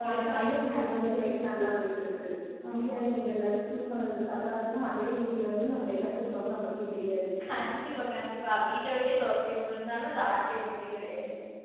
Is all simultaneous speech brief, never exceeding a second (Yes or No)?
No